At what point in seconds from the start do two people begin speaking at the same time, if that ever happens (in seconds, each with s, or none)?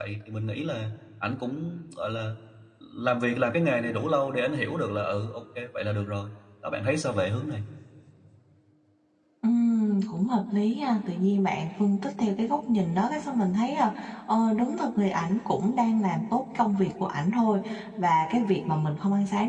none